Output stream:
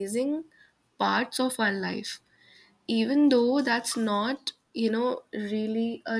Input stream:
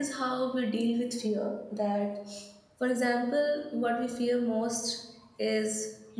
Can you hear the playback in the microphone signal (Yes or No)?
No